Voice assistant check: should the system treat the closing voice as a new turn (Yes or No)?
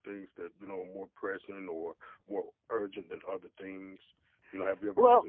Yes